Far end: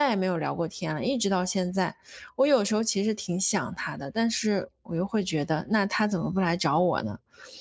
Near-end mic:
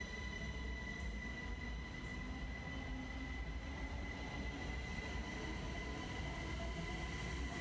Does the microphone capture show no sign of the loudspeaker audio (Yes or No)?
Yes